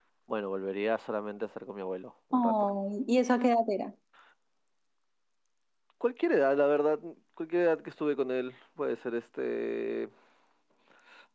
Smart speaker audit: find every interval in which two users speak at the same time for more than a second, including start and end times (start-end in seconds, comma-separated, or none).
none